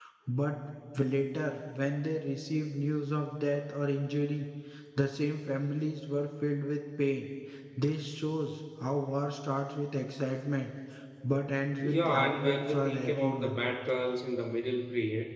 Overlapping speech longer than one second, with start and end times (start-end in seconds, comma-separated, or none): 11.8-13.6